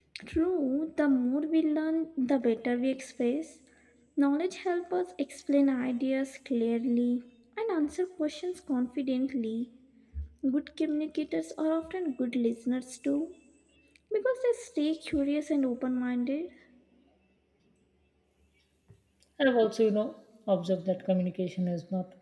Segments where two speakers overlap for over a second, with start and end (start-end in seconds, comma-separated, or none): none